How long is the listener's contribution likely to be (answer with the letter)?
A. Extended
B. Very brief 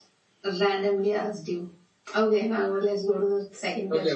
A